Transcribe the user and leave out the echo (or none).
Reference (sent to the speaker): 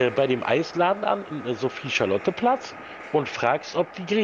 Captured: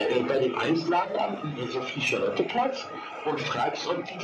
none